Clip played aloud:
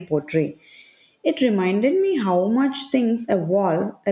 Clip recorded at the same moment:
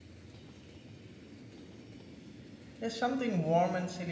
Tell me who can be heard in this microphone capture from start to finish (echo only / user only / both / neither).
user only